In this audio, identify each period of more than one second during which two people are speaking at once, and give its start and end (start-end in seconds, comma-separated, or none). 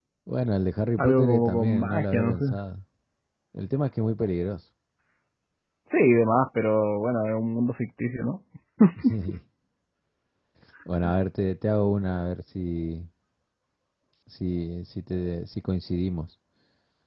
1.0-2.5